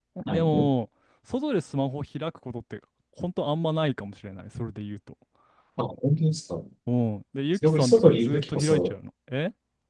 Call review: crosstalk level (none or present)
present